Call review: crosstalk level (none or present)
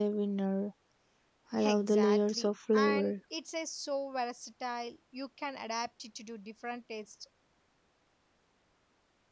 present